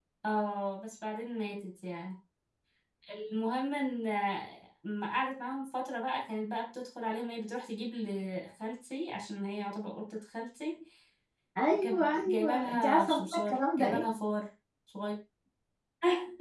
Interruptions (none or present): present